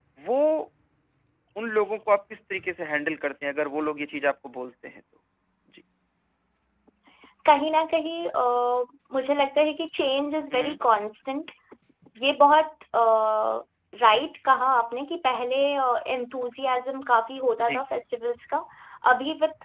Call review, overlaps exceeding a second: none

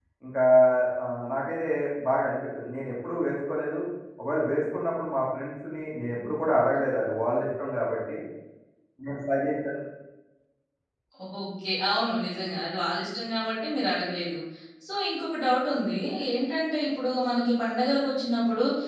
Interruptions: none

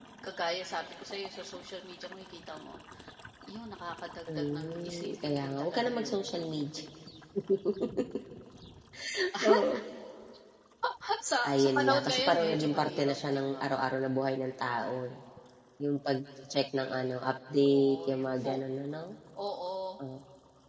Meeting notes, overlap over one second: present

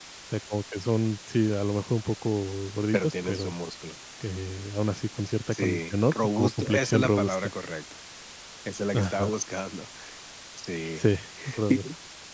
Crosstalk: present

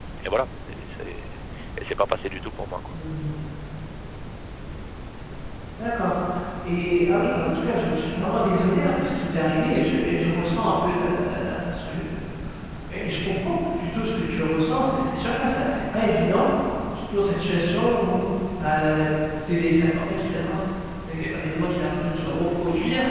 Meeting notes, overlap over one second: none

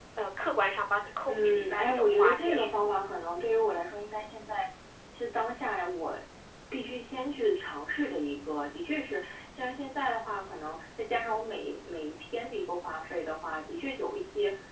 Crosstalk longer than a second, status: present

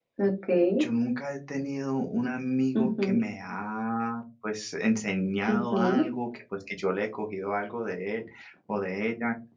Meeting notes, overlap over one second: none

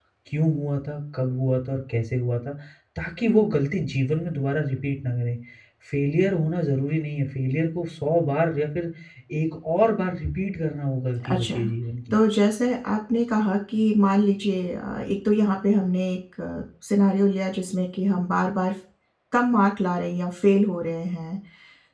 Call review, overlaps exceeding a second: none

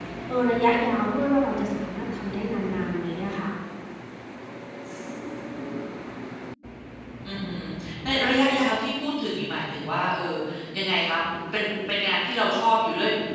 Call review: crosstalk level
none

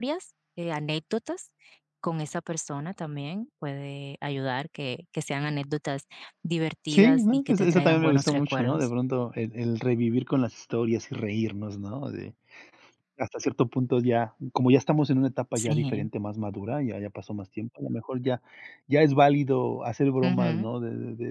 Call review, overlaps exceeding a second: present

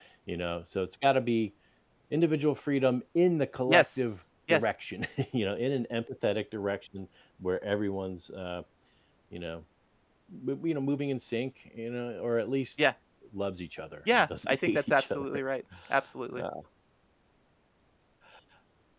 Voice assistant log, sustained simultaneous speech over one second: present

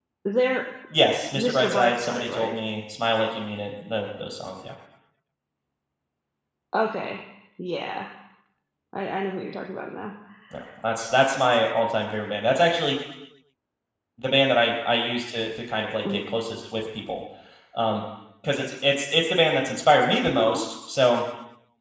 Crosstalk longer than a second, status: present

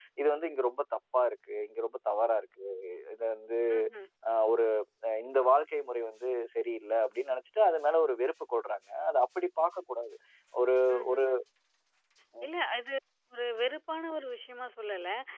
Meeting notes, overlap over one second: none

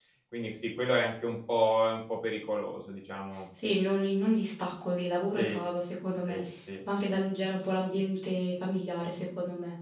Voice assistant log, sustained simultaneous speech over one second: none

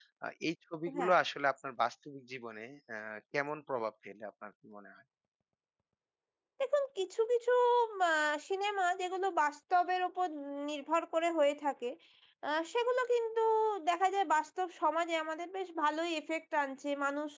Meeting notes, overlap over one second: none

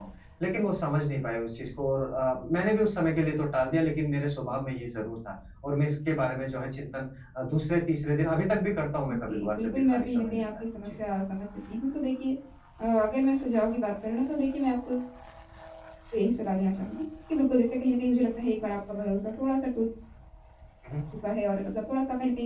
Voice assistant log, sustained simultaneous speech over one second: present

